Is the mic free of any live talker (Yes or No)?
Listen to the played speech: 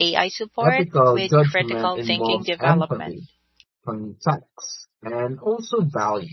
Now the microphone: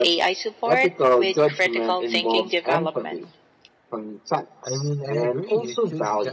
No